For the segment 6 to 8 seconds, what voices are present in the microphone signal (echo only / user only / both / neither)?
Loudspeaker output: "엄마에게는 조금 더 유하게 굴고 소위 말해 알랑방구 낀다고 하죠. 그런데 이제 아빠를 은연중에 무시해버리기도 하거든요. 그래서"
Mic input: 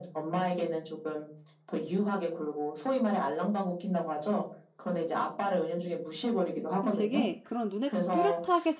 both